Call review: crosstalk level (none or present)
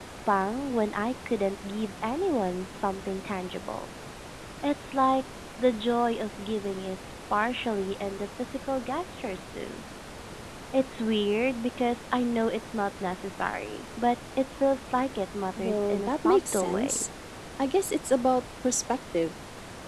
present